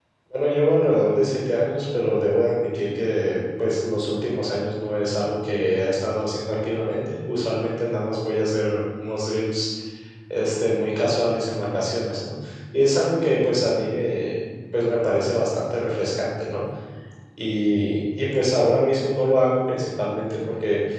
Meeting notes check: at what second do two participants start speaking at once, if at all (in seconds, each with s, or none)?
none